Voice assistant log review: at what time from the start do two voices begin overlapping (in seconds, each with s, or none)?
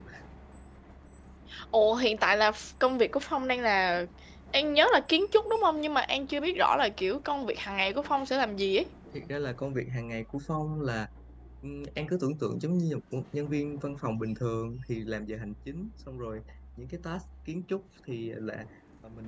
none